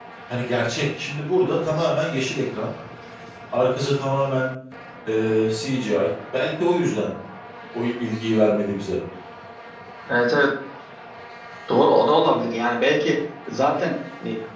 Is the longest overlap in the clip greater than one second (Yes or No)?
No